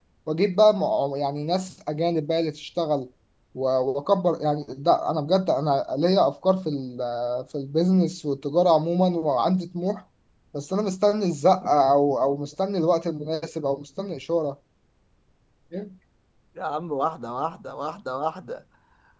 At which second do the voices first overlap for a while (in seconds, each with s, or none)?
none